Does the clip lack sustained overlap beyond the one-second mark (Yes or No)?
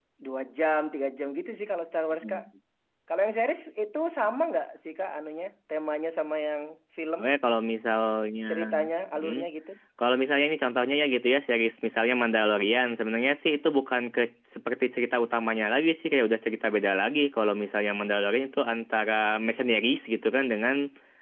Yes